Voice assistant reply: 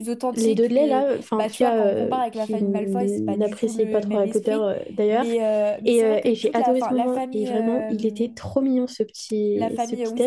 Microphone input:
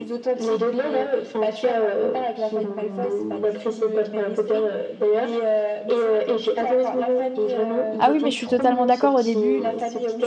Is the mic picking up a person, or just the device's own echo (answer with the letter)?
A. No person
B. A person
B